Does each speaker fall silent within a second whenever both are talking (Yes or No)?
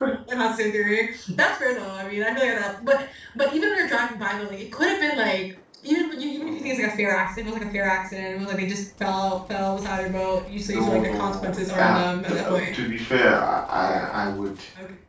No